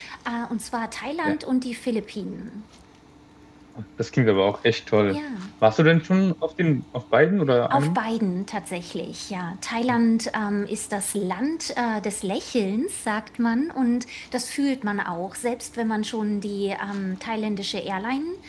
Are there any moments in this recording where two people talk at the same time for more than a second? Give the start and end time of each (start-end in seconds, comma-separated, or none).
none